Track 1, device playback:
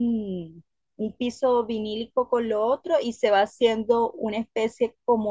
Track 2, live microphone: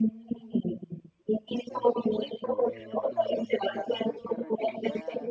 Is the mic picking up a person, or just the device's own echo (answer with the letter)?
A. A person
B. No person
A